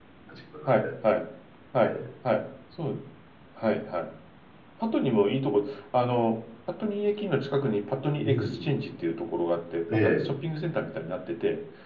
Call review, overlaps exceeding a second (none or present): none